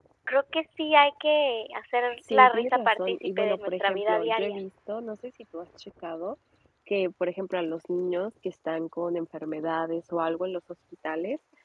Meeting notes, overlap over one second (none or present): present